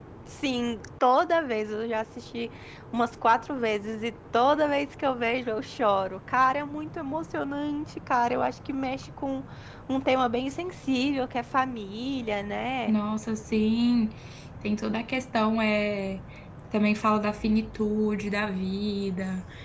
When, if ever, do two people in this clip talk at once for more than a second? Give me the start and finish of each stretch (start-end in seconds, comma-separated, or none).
none